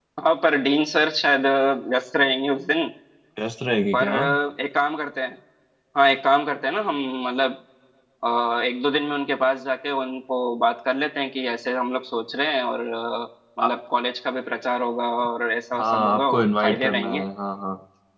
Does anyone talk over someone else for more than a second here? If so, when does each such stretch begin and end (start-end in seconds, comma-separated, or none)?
15.8-17.2